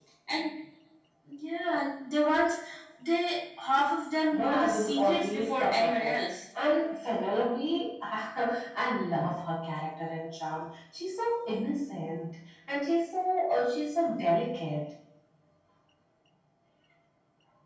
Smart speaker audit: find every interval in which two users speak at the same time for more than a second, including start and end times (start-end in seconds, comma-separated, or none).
4.3-6.2